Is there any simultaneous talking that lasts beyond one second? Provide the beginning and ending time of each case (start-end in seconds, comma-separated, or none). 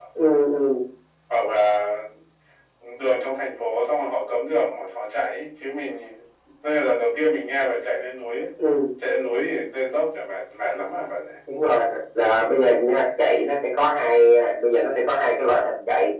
none